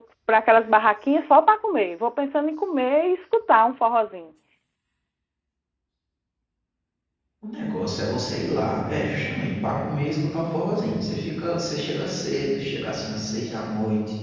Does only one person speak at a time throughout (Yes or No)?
Yes